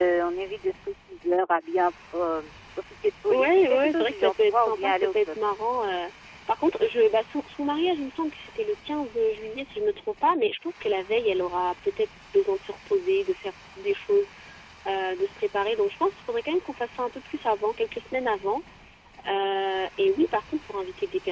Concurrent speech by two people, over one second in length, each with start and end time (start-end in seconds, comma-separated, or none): 3.3-5.4